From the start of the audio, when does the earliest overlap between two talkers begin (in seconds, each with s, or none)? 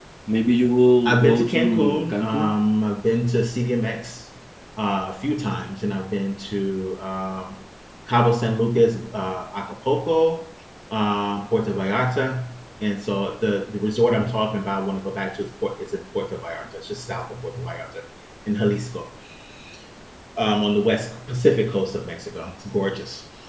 1.0 s